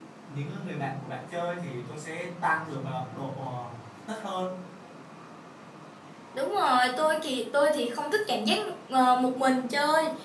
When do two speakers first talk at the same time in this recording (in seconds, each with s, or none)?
none